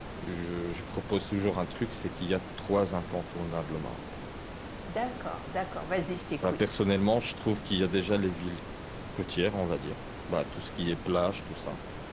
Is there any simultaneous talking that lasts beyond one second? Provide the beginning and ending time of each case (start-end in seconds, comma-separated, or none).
none